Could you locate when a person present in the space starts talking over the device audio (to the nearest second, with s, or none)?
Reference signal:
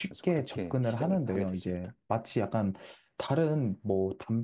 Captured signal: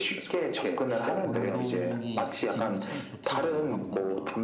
1 s